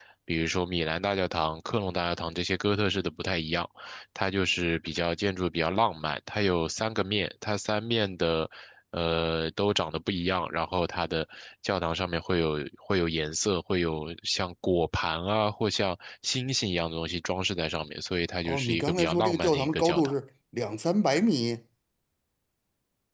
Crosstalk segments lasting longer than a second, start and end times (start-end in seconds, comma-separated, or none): 18.4-20.1